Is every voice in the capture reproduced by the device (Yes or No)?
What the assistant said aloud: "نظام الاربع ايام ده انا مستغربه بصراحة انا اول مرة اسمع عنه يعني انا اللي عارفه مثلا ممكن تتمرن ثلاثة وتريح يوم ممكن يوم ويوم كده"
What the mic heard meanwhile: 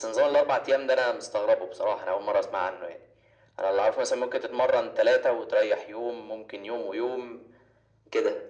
Yes